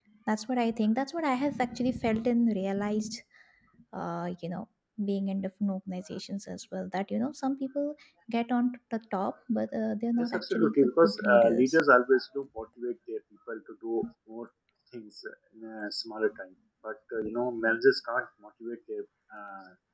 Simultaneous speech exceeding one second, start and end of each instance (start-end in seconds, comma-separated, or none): 10.2-11.8